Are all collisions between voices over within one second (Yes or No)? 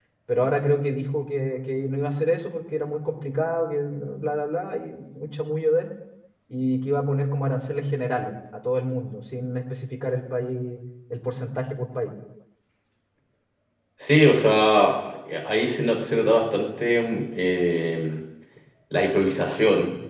Yes